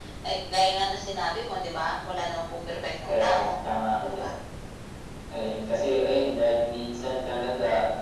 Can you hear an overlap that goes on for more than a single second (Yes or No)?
No